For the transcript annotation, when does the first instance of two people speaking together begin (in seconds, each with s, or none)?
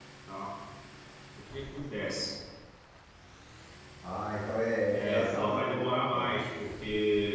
5.0 s